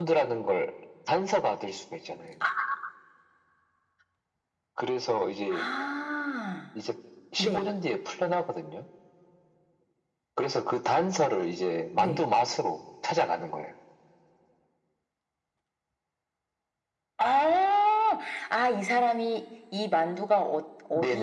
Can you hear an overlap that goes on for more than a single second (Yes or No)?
No